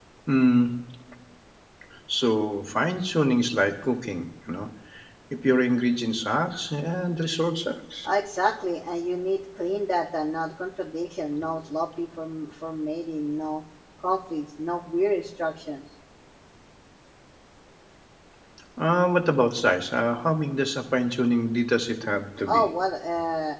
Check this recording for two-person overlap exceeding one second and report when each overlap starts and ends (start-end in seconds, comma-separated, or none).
none